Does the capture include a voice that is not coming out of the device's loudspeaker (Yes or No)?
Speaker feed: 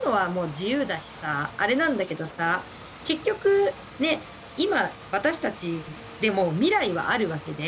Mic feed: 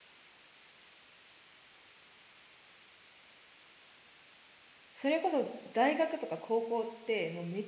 Yes